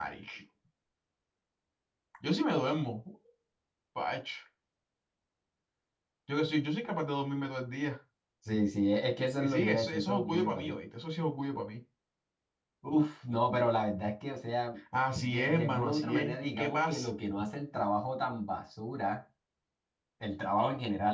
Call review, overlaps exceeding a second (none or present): present